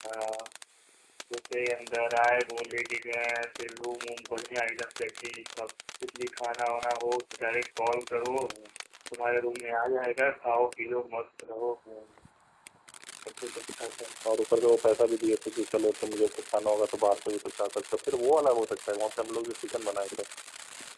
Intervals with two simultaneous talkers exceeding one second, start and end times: none

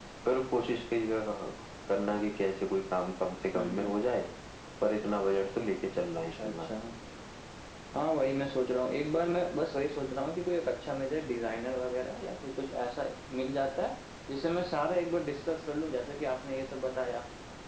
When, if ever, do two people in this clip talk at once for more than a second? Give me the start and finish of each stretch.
none

